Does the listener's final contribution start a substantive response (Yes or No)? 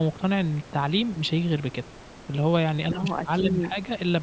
No